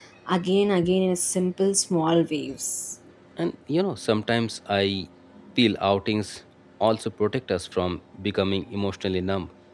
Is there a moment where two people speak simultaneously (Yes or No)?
No